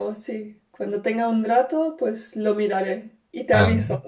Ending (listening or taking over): taking over